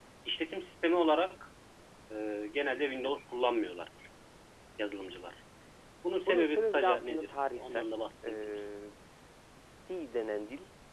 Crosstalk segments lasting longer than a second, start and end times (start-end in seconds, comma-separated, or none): 6.3-7.8